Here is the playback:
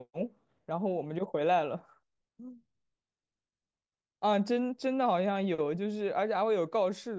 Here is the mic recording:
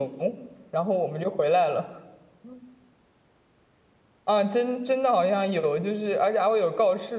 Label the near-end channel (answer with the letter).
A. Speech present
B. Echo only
B